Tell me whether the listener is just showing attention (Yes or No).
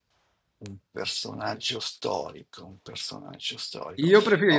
No